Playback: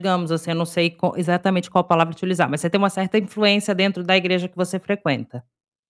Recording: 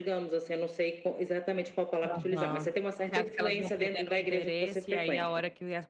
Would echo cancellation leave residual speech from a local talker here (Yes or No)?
Yes